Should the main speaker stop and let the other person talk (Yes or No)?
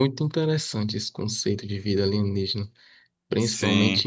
No